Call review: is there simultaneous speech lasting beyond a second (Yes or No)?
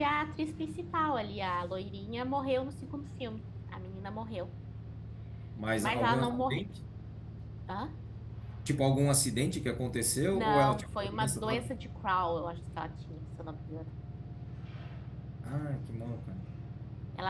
Yes